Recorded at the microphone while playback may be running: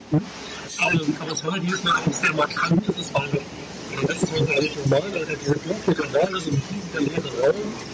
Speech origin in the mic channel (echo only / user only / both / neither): echo only